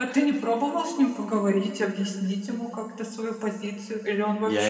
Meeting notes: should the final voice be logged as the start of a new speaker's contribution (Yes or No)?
Yes